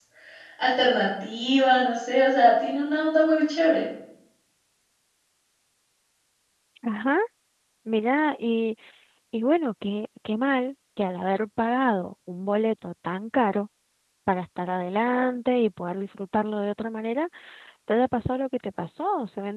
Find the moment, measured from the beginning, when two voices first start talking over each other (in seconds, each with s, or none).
none